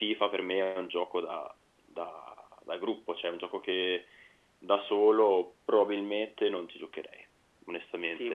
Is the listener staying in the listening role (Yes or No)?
No